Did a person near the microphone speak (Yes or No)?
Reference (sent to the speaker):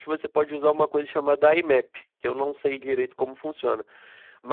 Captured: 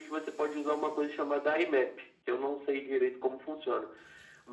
No